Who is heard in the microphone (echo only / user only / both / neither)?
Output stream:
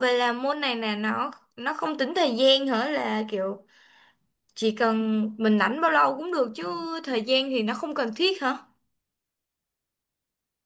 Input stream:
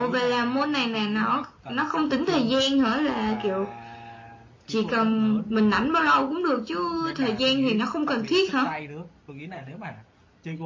both